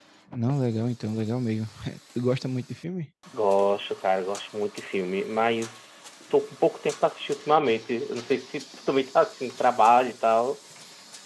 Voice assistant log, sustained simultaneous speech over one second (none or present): none